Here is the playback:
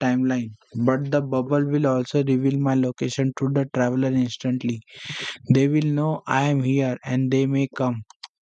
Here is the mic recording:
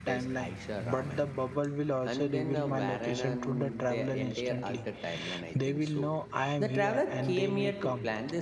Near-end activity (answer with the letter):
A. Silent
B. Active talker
B